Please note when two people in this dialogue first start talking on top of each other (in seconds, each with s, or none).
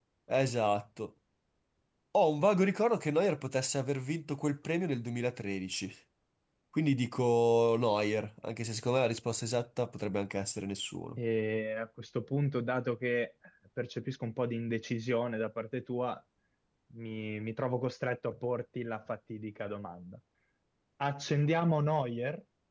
none